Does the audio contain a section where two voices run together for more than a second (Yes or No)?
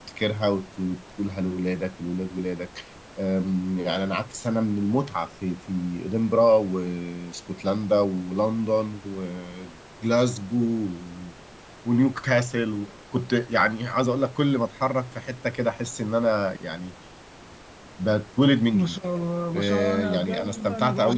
Yes